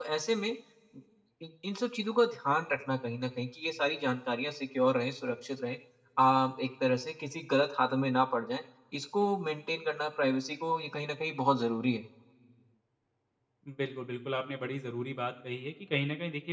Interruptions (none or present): none